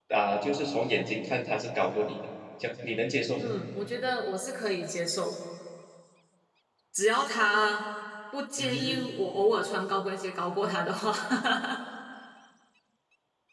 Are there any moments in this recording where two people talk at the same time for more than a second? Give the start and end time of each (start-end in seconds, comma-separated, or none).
none